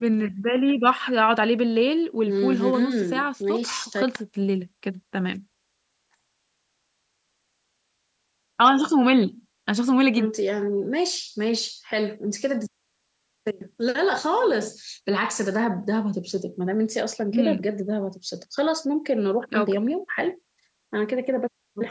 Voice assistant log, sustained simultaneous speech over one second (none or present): present